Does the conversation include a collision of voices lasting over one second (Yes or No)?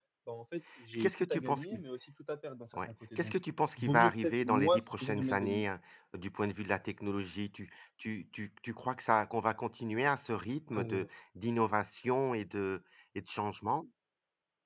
Yes